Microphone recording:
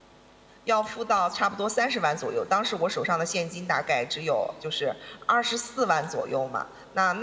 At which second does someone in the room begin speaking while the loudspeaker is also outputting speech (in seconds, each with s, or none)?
0.6 s